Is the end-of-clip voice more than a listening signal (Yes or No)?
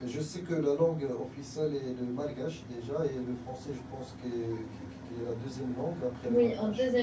Yes